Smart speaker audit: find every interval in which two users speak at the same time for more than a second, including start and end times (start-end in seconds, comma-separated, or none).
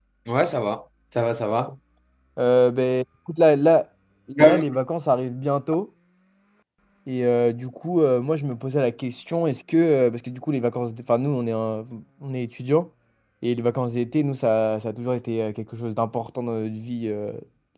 none